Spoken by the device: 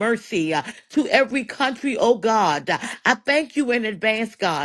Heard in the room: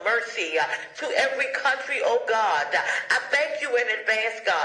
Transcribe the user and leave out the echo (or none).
none